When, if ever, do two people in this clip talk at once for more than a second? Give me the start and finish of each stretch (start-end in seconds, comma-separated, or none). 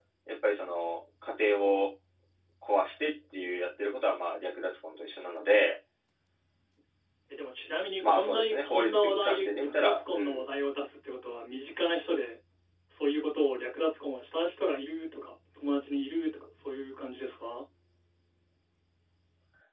8.1-10.4